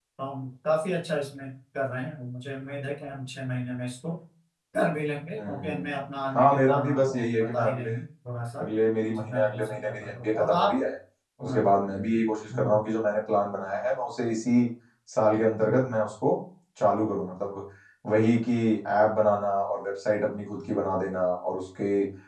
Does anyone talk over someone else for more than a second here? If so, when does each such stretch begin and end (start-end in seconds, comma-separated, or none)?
6.3-7.9, 9.2-10.8